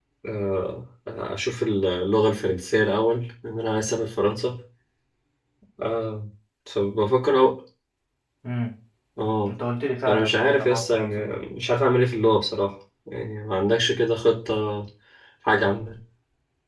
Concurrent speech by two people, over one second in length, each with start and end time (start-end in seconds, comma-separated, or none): 10.1-11.3